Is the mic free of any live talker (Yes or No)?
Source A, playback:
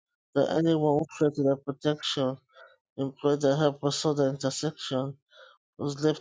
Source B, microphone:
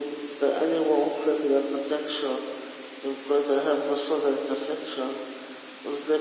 Yes